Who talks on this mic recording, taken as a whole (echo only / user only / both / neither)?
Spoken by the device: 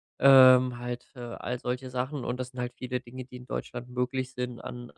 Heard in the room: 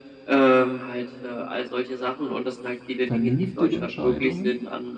both